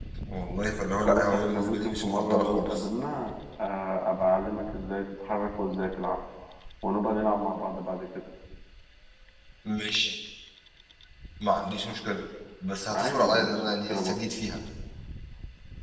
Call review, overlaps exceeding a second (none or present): present